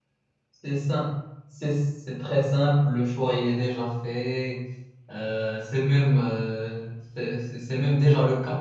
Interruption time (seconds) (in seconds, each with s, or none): none